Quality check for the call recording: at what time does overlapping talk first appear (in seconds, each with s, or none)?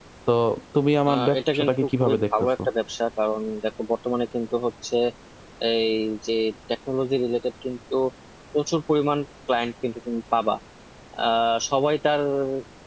1.1 s